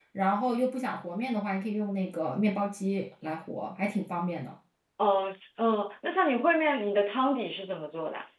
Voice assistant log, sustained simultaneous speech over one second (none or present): none